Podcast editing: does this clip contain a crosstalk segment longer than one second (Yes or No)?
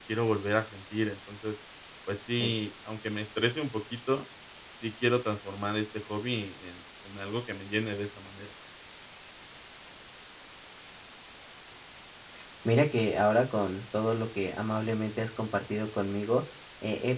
No